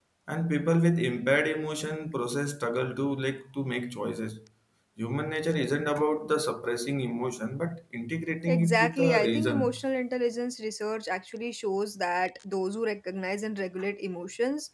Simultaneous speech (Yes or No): Yes